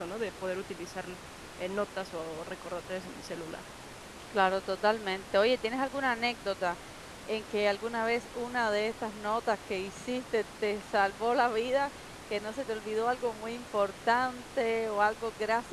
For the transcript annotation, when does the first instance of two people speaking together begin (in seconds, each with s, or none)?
none